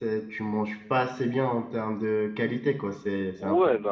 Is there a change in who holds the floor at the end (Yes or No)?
Yes